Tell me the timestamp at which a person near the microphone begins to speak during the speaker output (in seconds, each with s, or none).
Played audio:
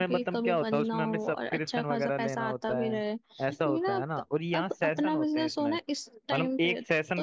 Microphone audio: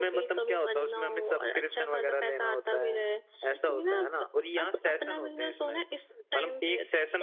none